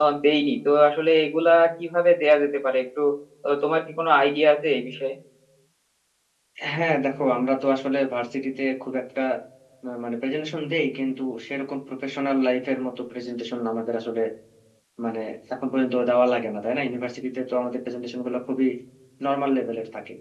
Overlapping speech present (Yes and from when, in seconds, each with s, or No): No